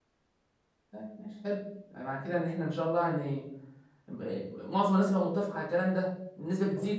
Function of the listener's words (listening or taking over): taking over